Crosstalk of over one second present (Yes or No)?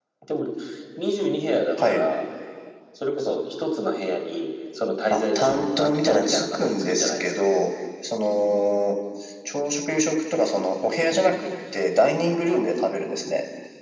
Yes